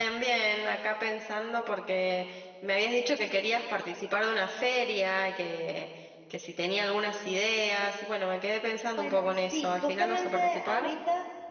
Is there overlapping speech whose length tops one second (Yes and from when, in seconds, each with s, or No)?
Yes, from 9.0 s